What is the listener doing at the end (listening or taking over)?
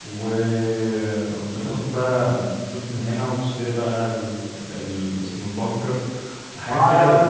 taking over